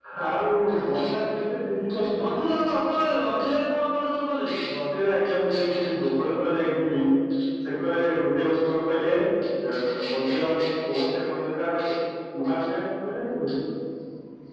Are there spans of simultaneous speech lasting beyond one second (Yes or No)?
No